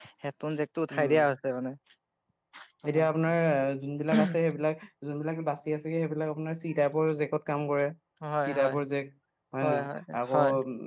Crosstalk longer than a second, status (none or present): none